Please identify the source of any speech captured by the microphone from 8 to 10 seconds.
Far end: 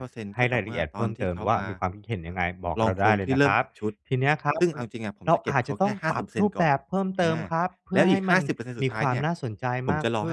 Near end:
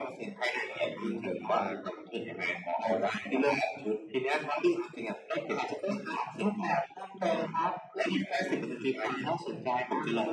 echo only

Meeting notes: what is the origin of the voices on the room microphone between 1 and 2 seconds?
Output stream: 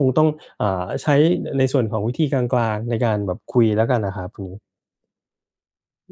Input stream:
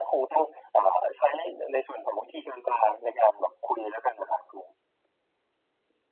echo only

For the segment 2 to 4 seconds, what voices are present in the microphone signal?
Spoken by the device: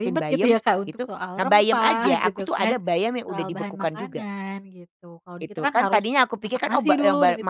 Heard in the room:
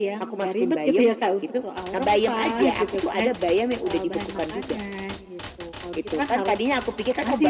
echo only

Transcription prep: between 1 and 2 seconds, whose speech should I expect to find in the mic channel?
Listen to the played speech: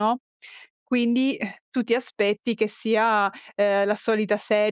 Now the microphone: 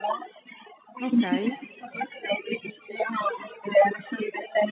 both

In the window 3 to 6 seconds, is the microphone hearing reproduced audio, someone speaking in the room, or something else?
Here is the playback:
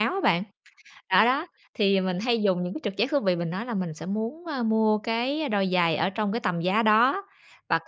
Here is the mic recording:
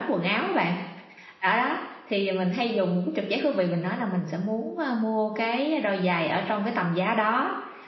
echo only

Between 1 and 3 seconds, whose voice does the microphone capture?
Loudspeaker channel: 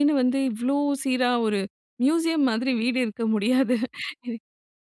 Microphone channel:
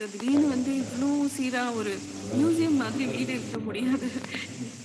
both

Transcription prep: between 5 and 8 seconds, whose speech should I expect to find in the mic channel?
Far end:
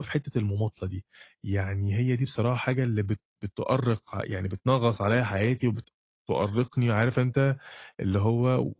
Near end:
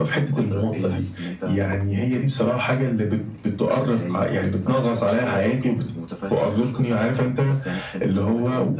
both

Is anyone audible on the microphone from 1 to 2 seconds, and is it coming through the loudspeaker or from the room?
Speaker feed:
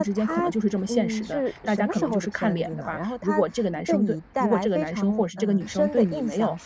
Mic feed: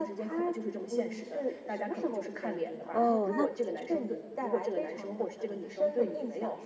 echo only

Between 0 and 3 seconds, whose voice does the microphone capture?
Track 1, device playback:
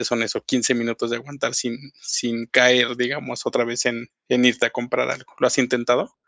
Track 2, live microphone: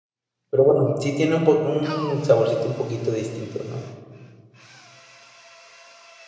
user only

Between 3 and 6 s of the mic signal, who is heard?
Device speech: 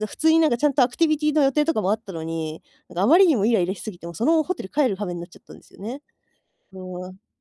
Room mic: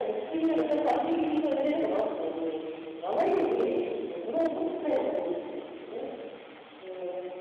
echo only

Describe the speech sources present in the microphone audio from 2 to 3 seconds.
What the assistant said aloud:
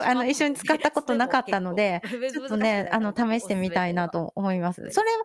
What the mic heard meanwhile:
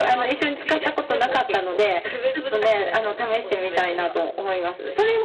echo only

